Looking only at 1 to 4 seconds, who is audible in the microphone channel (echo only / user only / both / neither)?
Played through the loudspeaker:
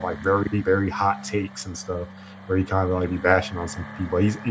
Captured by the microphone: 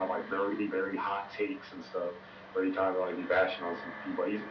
echo only